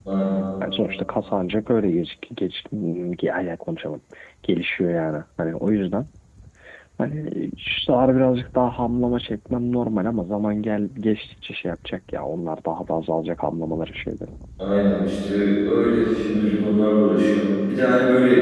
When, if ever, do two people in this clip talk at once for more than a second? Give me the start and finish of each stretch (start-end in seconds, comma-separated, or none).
none